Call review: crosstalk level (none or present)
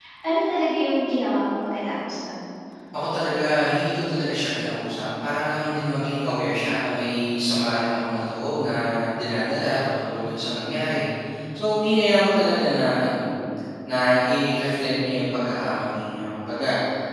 none